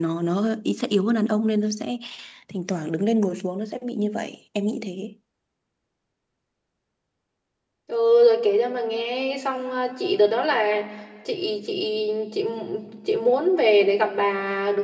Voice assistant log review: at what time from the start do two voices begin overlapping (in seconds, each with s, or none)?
none